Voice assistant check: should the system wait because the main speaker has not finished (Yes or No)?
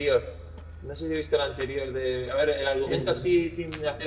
Yes